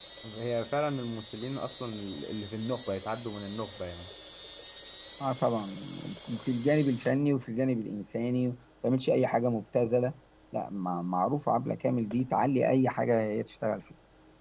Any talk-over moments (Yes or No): No